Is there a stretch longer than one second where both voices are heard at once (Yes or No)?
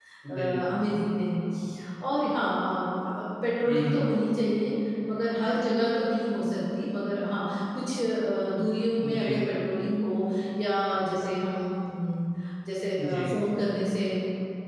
No